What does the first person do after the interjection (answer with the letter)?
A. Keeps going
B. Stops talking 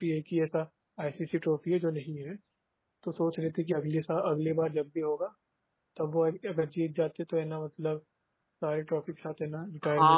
B